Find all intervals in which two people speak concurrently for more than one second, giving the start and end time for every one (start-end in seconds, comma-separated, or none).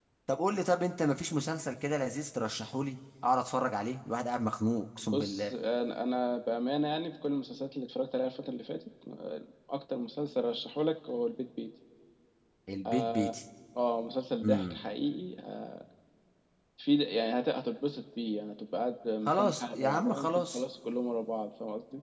19.2-20.6